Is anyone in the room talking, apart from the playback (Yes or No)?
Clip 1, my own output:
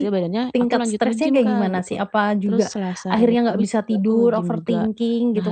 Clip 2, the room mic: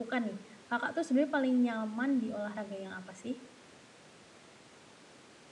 Yes